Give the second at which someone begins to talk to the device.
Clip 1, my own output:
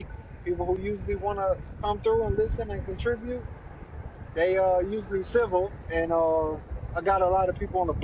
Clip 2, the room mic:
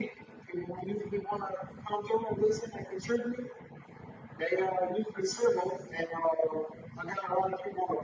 none

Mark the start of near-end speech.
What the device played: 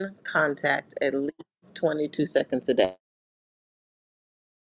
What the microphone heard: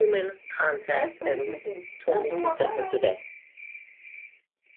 0.9 s

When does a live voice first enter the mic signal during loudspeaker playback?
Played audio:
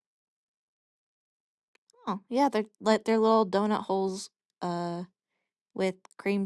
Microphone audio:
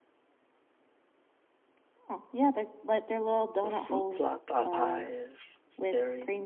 3.6 s

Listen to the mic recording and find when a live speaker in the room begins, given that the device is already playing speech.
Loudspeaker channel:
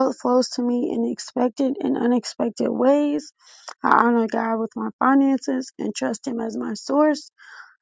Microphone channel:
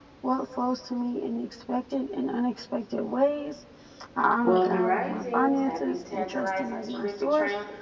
4.4 s

